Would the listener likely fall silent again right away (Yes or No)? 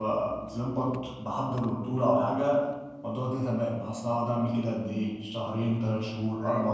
Yes